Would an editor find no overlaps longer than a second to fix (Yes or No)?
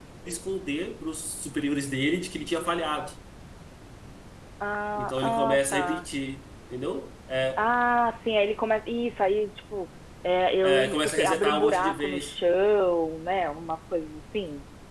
No